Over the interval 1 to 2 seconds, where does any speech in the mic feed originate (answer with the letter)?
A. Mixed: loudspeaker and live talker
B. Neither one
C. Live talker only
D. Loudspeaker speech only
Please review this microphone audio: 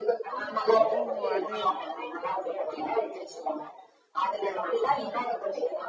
A